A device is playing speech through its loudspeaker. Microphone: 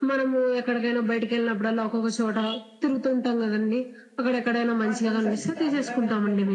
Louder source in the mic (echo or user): echo